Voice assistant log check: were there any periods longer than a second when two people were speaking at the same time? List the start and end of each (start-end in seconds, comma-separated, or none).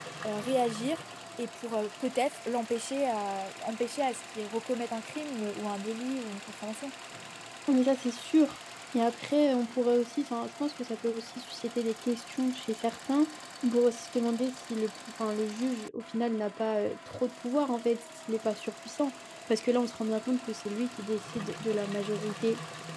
none